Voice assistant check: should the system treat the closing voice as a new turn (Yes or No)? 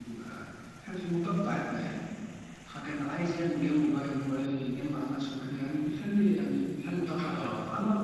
No